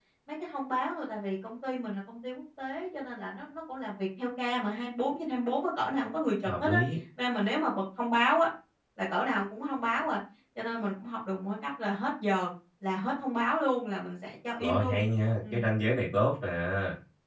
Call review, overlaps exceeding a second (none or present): none